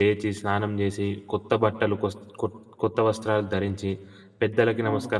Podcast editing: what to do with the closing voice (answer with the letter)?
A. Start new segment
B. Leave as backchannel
B